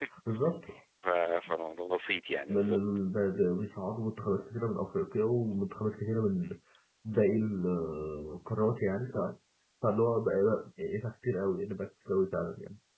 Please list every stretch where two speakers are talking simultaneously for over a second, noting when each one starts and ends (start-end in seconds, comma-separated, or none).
none